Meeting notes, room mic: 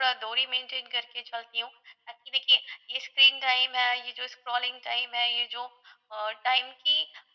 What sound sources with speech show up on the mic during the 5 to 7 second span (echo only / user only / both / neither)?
echo only